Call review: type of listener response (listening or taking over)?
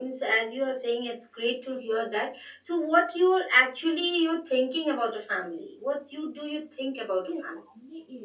taking over